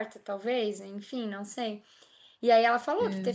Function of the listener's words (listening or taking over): listening